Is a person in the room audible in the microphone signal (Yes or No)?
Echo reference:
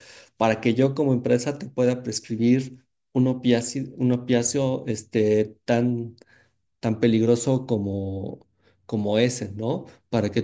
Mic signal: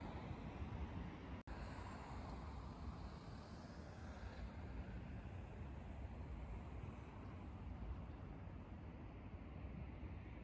No